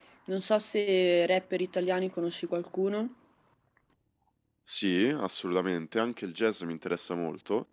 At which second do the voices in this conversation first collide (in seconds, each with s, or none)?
none